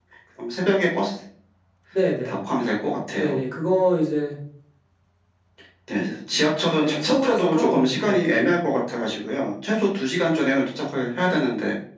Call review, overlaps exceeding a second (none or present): present